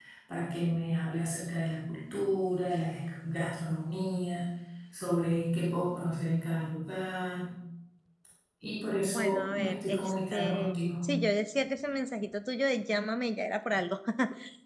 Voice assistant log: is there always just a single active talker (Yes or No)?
No